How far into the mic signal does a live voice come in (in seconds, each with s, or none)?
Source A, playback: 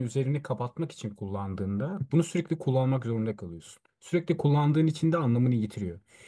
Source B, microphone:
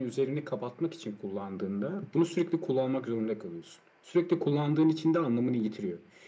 none